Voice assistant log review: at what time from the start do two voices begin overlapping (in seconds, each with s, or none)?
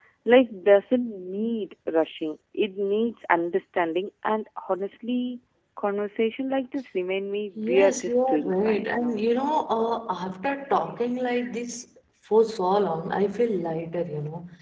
7.6 s